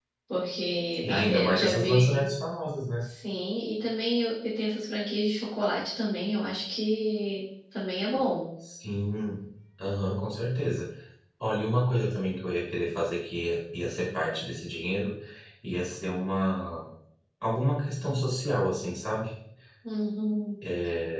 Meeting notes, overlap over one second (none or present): present